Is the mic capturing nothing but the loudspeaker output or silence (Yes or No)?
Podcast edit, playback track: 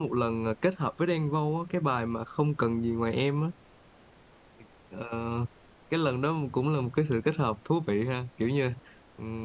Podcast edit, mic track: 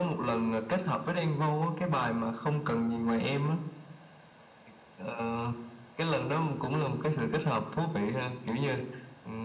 Yes